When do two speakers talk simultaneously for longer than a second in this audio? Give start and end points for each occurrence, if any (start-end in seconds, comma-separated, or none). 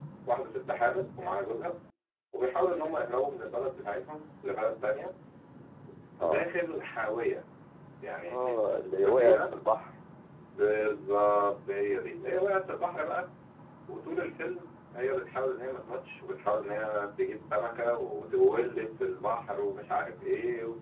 8.3-9.5